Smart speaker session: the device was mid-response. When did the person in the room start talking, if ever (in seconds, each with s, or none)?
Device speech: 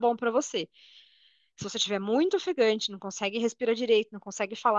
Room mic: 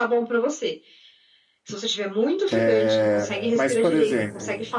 2.5 s